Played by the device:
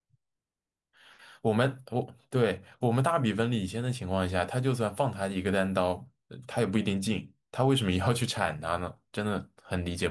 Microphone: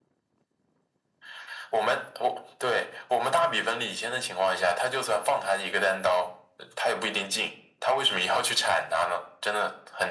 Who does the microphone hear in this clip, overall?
echo only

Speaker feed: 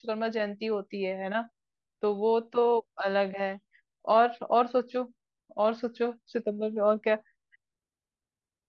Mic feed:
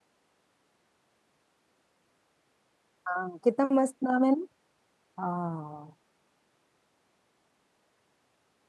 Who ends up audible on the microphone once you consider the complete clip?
user only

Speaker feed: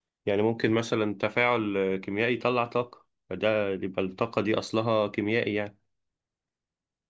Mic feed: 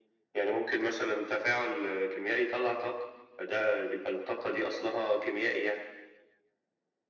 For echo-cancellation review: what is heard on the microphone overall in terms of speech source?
echo only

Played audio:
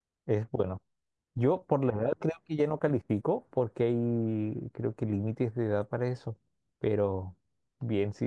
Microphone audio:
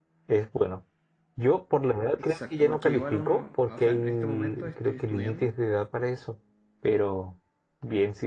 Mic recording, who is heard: both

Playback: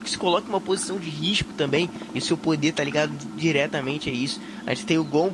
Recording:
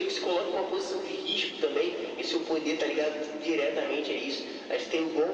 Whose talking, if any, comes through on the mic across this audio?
echo only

